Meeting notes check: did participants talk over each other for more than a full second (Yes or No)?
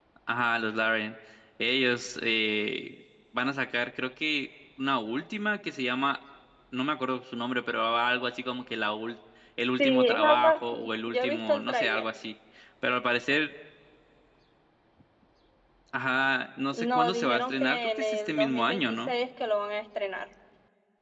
Yes